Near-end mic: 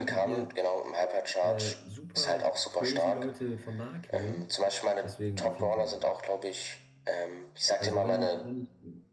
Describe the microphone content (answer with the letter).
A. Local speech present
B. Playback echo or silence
A